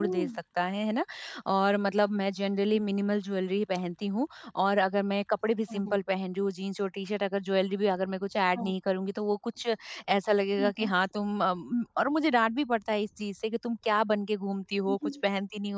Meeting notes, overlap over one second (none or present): none